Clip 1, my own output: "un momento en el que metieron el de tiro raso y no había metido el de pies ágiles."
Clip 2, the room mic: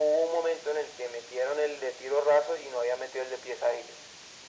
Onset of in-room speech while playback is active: none

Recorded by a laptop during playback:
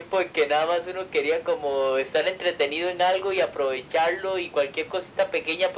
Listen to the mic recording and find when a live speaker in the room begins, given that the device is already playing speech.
none

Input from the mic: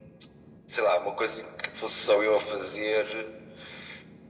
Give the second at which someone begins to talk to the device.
none

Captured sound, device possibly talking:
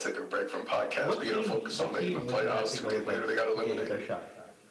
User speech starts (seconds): 1.0 s

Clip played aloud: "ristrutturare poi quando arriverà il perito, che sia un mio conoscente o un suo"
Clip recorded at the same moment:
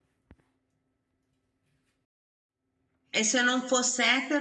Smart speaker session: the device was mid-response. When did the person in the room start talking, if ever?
3.2 s

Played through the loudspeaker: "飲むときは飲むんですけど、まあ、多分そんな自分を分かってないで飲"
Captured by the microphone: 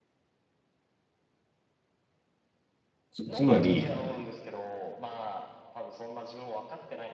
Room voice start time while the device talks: 3.1 s

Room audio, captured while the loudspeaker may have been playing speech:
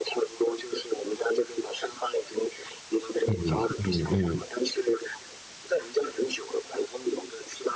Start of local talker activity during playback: 3.2 s

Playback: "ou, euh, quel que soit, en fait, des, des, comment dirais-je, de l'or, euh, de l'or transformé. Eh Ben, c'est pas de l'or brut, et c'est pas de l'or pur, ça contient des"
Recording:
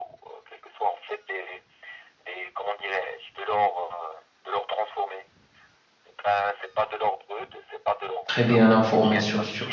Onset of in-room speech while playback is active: 8.3 s

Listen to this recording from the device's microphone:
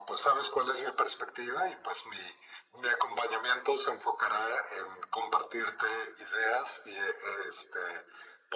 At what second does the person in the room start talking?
none

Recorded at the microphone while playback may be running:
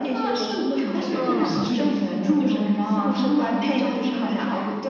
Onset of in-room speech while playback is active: 1.1 s

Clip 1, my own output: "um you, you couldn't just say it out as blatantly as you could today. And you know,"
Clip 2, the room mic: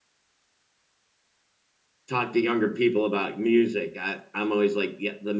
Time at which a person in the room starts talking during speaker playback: 2.1 s

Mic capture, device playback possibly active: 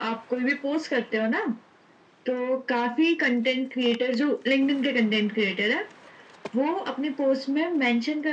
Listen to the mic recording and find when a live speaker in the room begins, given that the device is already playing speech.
none

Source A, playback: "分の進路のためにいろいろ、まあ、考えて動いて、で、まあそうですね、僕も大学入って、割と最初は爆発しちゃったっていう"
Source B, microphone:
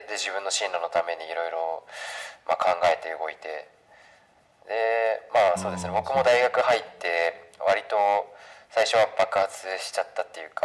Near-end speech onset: 5.5 s

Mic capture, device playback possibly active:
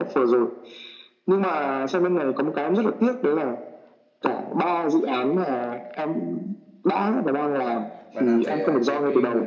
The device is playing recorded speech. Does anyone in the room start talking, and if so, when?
7.6 s

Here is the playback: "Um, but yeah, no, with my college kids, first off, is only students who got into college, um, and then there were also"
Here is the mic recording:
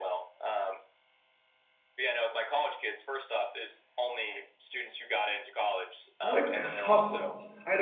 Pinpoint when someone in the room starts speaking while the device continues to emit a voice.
6.2 s

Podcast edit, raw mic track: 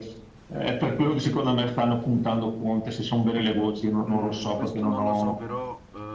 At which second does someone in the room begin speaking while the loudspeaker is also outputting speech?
4.1 s

